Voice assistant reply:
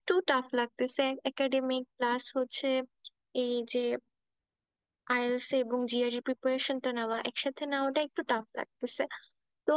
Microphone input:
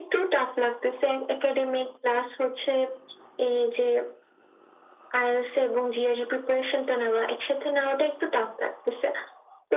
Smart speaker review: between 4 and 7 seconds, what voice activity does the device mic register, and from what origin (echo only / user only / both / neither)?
echo only